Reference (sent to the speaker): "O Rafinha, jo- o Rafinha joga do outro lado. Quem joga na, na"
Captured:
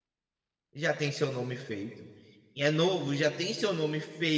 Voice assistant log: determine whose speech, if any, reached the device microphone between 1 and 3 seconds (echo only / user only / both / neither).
user only